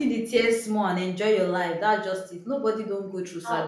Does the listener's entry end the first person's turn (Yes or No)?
No